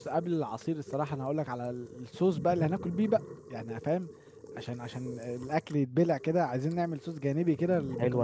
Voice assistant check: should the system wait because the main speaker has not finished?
No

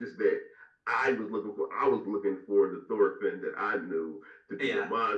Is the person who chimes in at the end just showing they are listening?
Yes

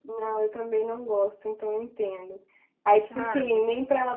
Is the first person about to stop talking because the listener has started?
No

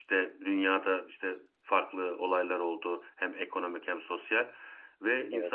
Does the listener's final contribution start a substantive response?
No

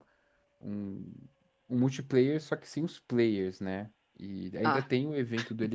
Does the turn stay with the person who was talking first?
Yes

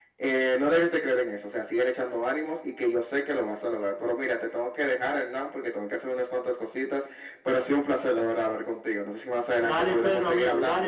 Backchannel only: No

